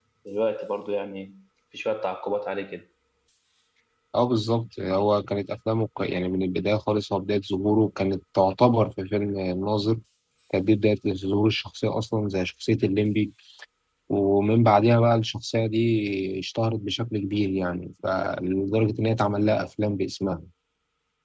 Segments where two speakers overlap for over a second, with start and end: none

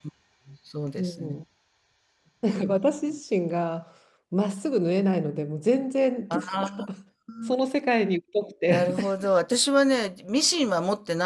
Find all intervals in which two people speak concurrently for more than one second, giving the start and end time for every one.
none

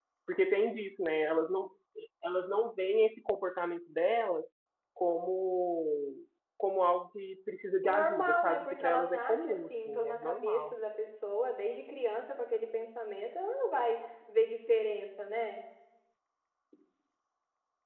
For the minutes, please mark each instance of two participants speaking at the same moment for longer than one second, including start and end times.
7.8-10.8

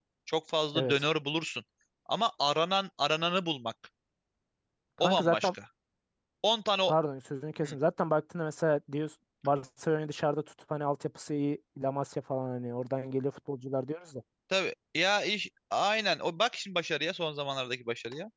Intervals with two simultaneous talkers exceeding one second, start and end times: none

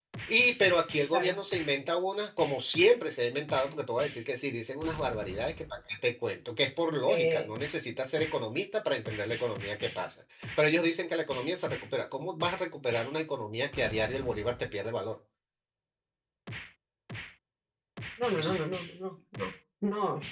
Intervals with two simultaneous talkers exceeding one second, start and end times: none

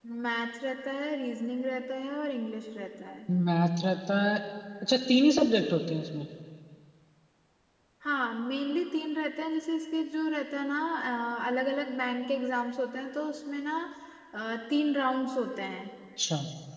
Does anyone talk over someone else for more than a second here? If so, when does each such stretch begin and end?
none

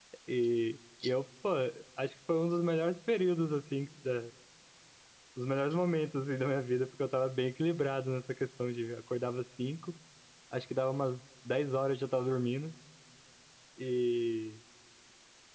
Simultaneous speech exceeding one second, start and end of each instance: none

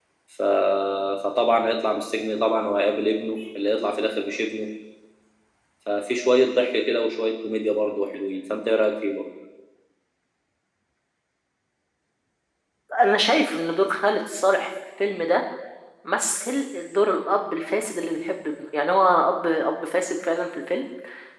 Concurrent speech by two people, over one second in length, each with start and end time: none

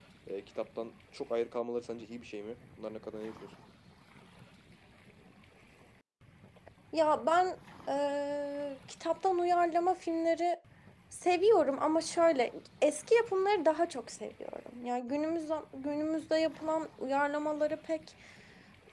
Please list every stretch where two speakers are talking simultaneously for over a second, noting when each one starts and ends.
none

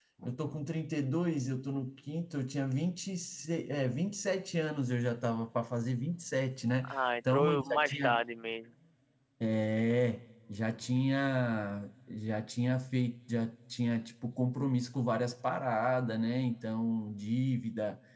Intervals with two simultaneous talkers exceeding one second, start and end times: 6.9-8.2

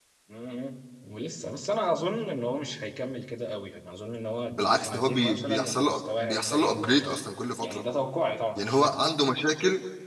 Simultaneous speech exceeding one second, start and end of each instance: 4.5-7.2

